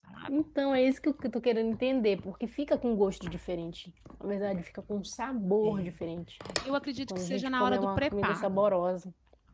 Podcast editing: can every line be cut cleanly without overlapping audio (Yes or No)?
No